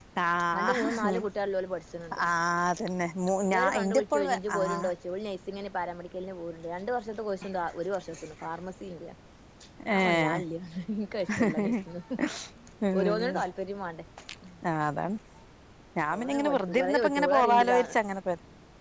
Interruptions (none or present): present